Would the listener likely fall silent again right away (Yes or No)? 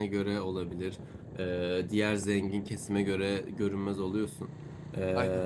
Yes